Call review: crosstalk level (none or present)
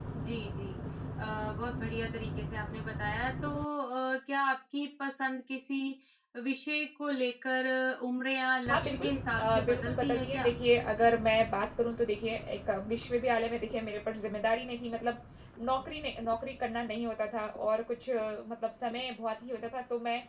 present